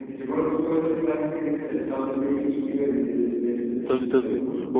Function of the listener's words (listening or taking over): taking over